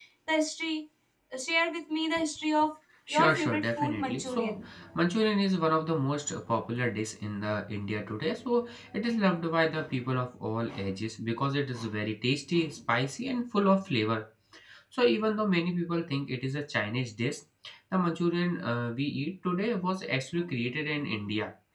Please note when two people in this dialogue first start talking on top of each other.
3.1 s

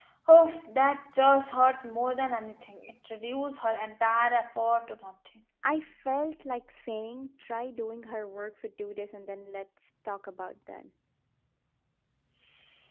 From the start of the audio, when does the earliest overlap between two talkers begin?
none

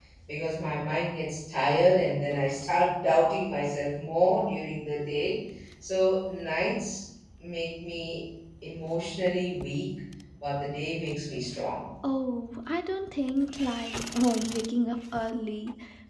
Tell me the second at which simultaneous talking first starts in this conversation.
none

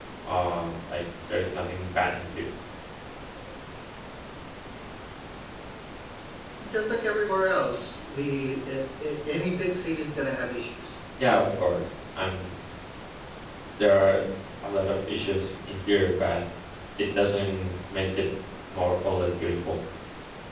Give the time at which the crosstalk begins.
none

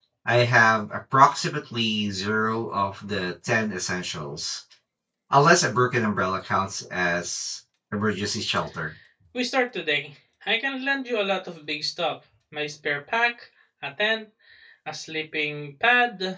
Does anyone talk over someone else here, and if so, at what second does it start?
none

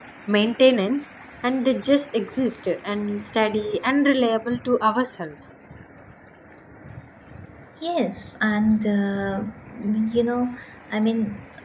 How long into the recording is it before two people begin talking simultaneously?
none

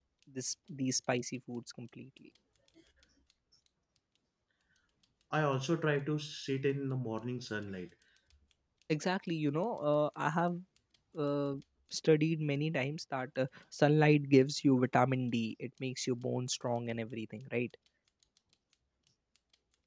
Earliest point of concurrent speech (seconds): none

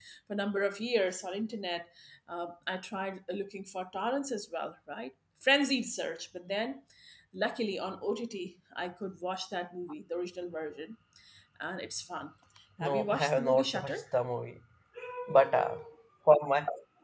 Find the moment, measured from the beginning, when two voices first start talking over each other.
12.8 s

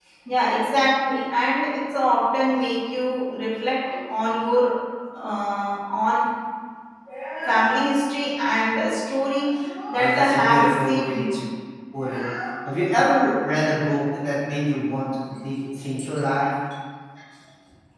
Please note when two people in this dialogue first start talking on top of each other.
9.9 s

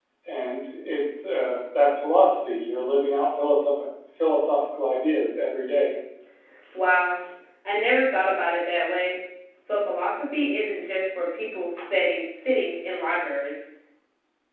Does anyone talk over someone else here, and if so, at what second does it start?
none

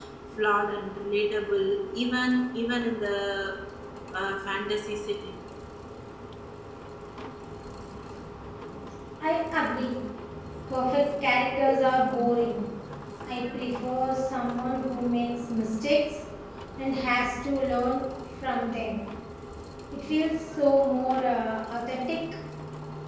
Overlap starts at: none

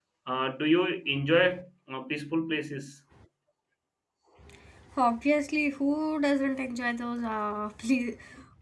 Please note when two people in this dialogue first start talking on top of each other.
none

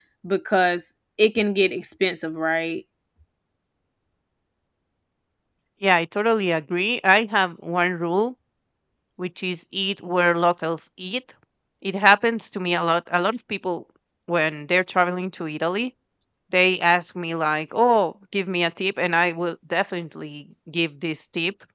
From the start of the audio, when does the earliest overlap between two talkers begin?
none

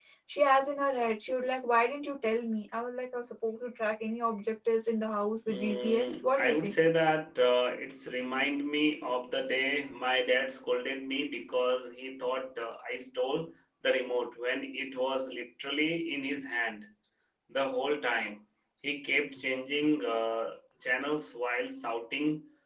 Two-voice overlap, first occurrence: 5.5 s

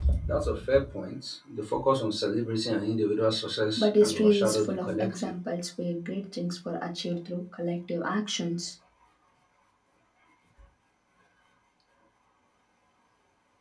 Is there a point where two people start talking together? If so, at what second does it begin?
3.8 s

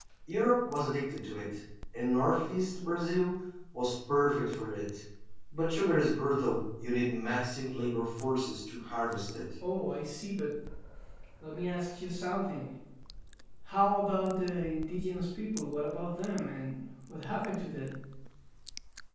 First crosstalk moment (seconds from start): none

